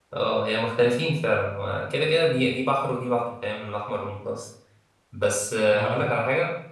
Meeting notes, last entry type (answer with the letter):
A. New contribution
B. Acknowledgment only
B